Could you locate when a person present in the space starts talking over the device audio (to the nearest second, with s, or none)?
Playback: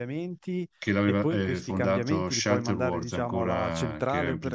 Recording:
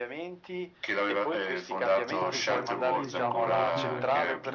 2 s